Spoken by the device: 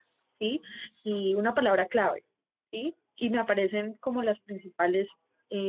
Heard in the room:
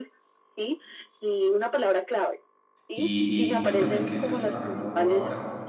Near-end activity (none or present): present